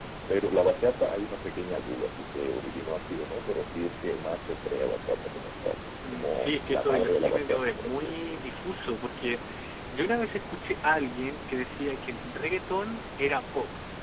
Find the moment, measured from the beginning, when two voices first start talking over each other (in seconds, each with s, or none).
6.0 s